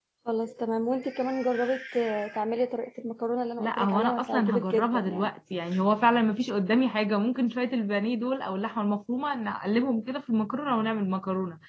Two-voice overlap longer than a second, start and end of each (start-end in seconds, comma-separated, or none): 3.6-5.3